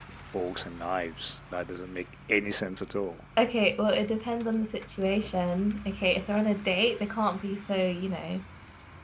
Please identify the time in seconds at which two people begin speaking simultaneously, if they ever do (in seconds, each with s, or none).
none